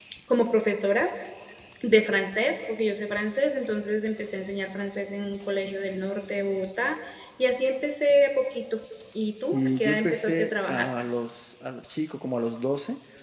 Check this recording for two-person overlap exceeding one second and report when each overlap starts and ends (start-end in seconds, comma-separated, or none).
9.5-10.9